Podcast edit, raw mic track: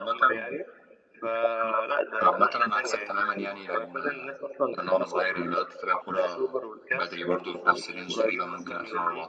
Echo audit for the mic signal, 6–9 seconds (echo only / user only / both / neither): echo only